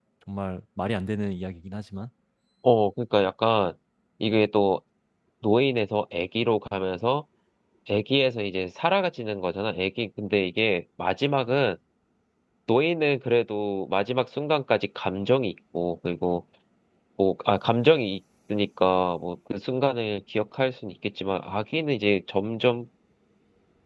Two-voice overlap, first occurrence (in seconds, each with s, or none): none